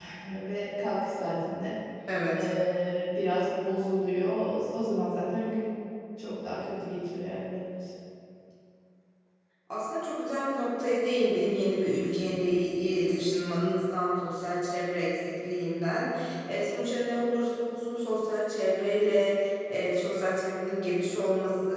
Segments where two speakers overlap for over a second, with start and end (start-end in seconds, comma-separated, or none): none